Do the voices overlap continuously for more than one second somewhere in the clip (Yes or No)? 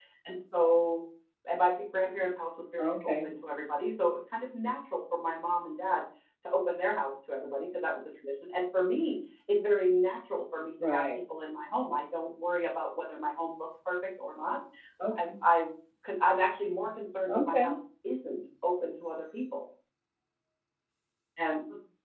No